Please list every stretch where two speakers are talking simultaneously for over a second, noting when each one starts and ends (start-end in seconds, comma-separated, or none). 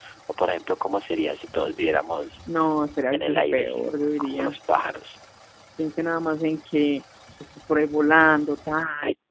3.1-4.6